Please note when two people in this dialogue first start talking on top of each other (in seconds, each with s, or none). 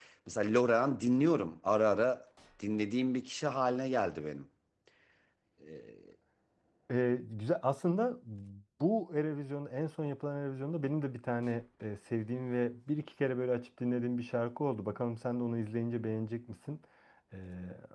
none